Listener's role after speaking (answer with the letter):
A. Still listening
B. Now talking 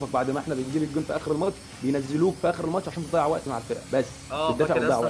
B